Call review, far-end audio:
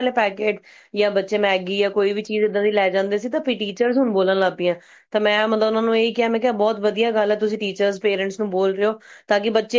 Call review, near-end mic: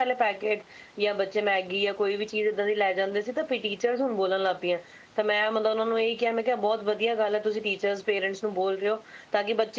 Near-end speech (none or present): none